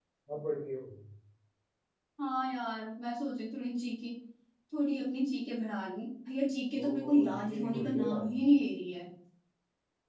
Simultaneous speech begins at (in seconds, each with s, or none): 6.8 s